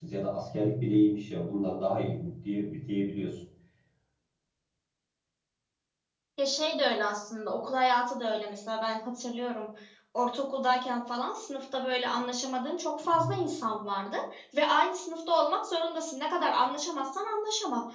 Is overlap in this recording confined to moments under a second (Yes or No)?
Yes